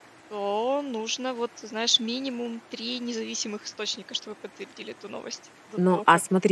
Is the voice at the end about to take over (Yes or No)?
Yes